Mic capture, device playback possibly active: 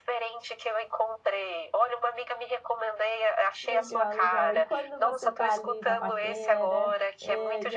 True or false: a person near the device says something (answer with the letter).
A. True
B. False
A